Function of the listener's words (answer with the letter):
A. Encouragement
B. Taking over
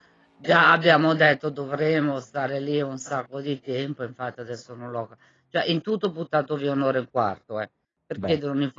A